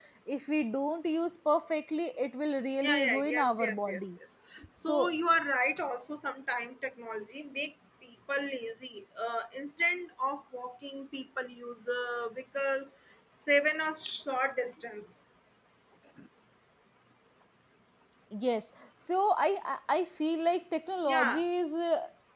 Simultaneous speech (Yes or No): Yes